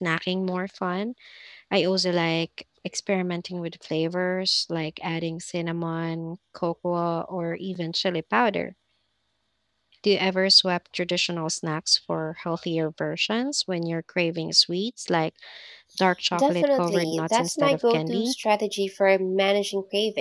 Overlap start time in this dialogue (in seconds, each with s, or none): 16.3 s